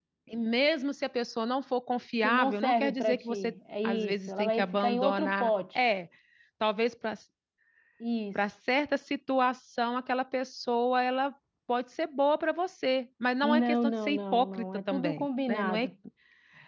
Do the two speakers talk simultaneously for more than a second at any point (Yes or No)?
Yes